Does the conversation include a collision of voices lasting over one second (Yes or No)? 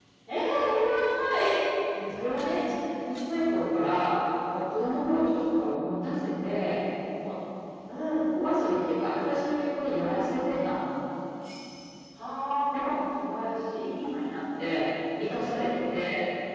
No